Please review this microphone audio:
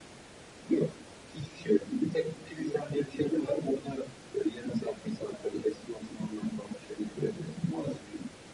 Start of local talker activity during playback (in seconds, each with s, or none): none